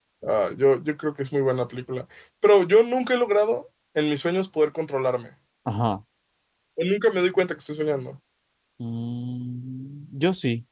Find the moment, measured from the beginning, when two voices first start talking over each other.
none

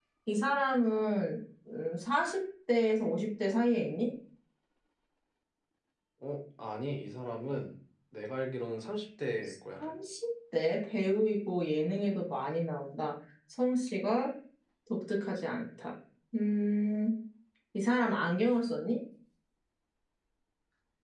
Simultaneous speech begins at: none

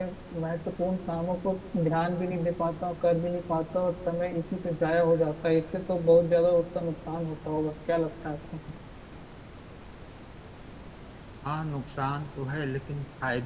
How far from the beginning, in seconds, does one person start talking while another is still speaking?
none

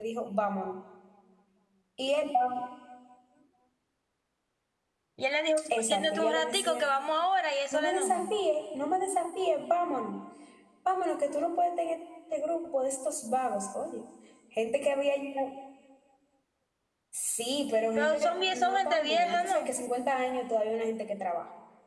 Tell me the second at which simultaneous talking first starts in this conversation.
5.7 s

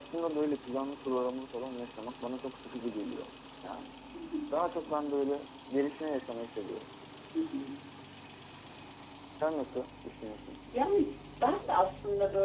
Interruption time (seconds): none

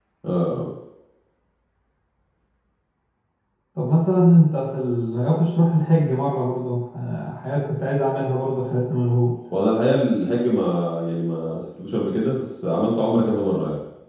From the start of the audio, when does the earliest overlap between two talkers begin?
none

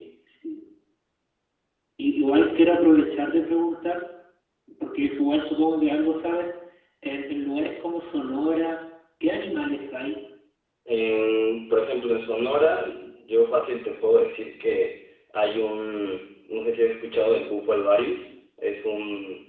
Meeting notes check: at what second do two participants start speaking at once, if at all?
none

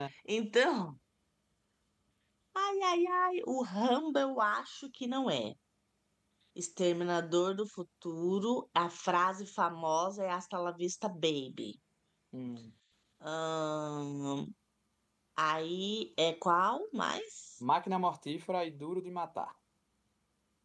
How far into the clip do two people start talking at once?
none

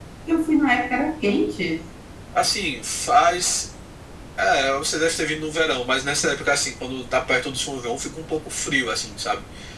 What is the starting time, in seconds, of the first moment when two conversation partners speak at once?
none

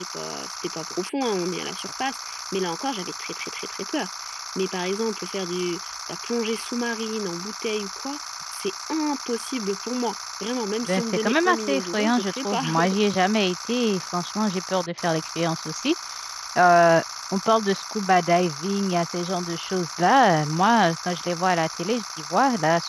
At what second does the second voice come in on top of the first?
10.9 s

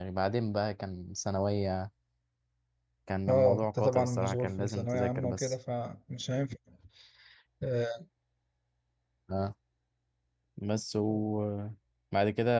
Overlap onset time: 3.3 s

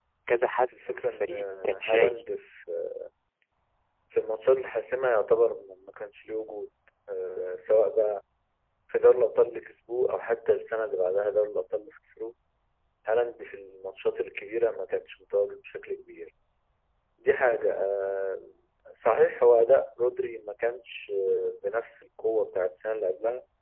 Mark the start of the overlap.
0.9 s

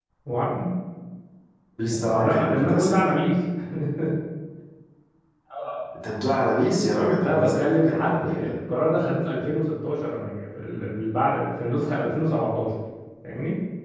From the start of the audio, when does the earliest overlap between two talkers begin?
1.8 s

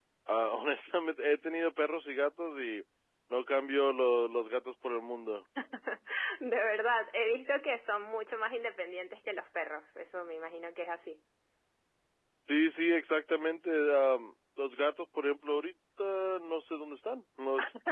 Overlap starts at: none

